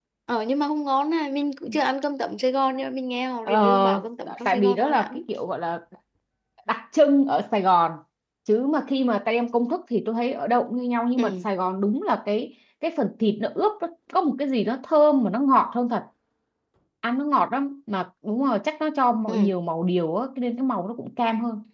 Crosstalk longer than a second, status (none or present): present